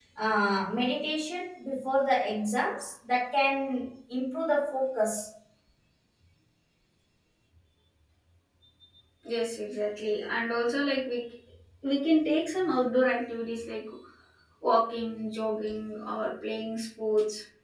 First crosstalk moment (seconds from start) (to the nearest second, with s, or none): none